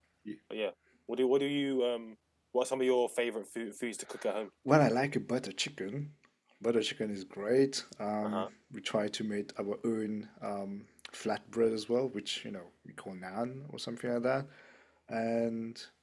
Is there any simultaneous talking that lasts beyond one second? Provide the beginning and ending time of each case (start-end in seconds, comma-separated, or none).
none